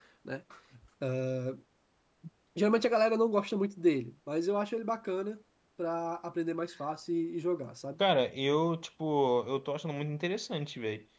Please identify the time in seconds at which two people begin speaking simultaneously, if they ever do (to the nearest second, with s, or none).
none